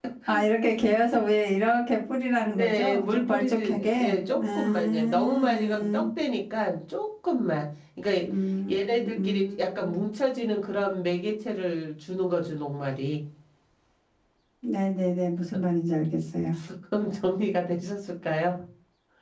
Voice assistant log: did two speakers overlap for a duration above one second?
Yes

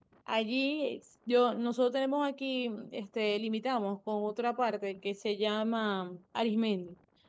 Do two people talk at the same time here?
No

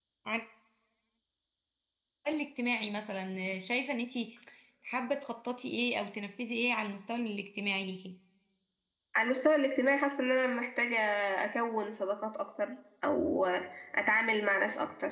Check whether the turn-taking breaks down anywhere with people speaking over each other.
No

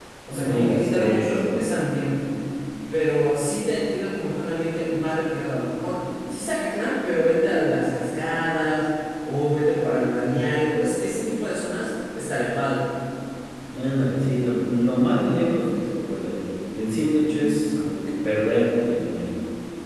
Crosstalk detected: Yes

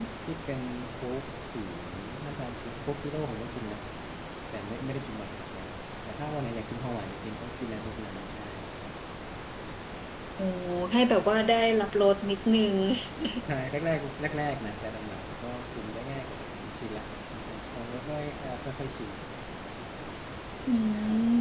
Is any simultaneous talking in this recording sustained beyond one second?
No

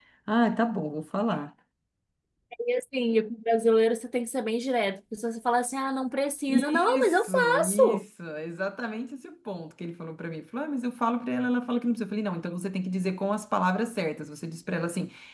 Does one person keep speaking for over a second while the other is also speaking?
Yes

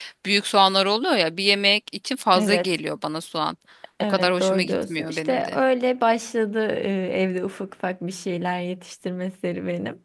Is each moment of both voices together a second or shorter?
No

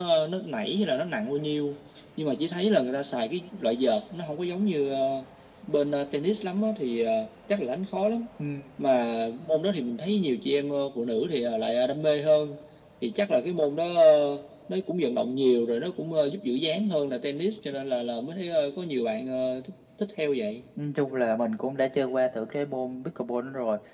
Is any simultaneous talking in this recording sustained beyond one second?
No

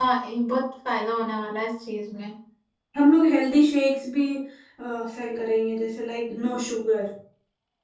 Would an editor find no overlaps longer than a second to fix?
Yes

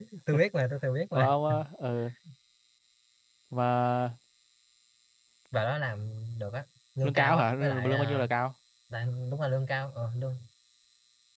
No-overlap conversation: No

